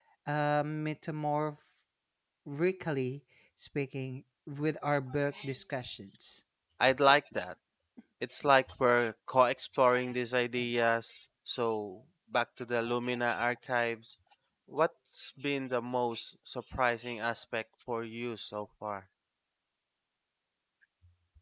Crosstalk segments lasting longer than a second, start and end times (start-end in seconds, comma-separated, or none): none